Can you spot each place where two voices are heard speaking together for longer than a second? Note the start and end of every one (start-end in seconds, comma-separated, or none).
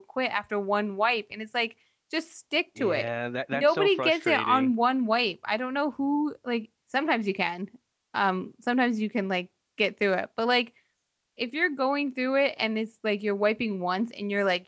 3.5-4.7